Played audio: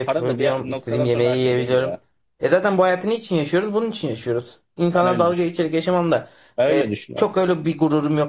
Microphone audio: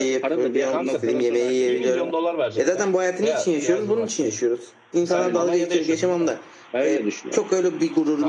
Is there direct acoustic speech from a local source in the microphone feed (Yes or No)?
Yes